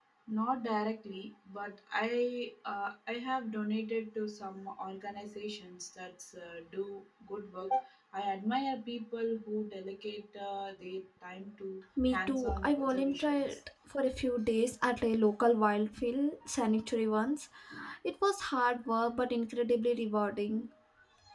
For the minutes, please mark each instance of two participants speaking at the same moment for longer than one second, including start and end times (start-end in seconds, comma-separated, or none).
12.1-13.4